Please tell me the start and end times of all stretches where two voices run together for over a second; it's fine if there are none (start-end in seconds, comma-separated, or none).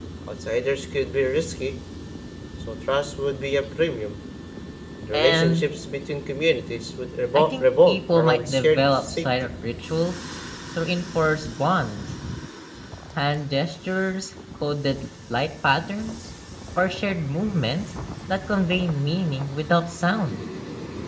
7.3-9.3